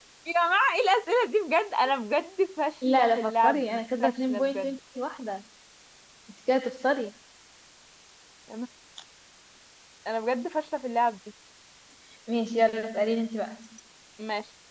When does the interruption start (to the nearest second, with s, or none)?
3 s